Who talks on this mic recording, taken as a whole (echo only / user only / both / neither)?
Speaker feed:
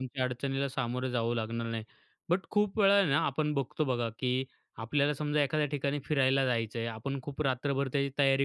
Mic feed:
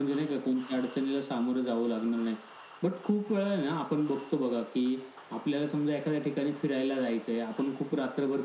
echo only